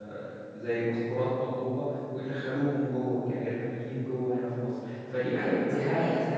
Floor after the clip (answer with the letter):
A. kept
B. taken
B